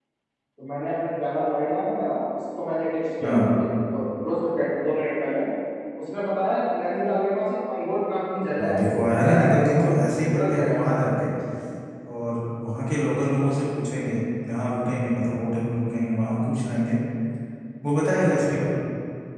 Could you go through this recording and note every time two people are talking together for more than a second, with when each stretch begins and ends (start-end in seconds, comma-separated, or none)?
8.6-10.9